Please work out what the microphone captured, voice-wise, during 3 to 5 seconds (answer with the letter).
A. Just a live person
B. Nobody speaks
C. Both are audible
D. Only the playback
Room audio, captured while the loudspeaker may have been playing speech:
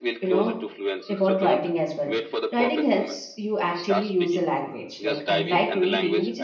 C